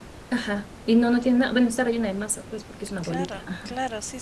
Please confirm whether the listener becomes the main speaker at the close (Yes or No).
Yes